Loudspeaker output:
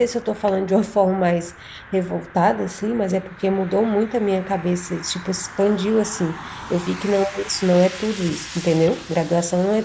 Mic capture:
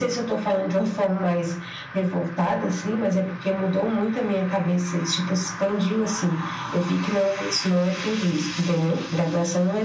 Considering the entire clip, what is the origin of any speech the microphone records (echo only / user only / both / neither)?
echo only